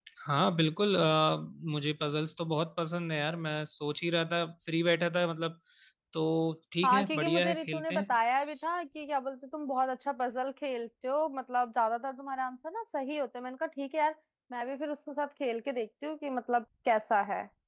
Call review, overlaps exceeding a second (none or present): present